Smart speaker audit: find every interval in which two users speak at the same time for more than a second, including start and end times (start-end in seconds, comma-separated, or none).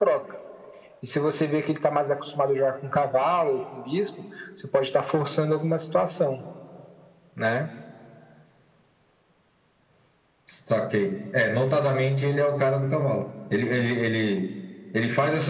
none